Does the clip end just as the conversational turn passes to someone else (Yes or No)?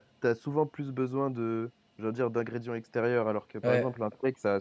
No